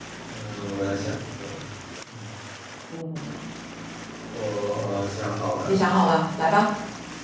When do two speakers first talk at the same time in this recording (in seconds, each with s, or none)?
none